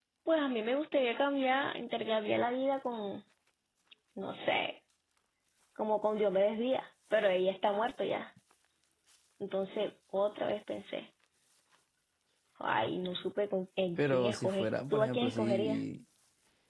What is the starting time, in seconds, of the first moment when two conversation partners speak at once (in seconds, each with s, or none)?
14.0 s